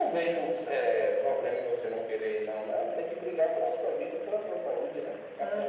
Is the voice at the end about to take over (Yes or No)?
Yes